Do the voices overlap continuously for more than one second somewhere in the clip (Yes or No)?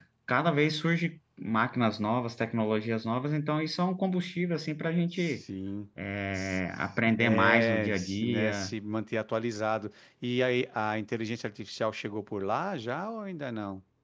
Yes